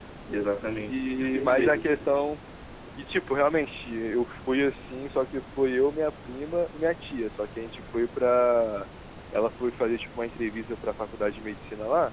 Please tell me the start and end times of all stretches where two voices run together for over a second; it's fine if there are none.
0.7-2.1

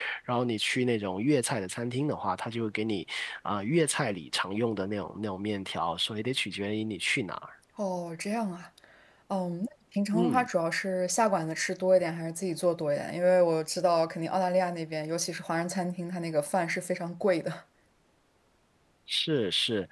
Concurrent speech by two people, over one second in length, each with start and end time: none

